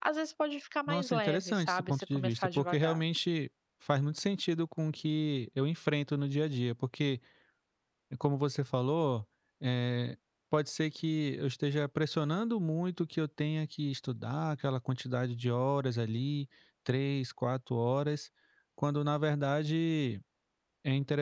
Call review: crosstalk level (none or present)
present